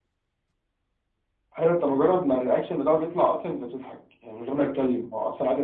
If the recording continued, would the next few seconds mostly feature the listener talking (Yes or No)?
No